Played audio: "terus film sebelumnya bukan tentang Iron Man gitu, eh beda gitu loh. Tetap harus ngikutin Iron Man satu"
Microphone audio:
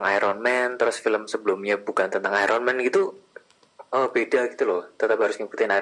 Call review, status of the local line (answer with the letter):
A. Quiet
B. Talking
A